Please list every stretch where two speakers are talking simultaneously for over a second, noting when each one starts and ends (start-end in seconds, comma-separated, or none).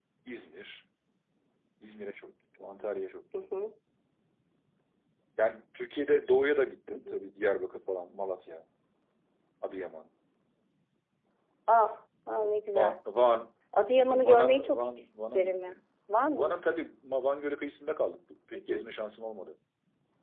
14.1-15.8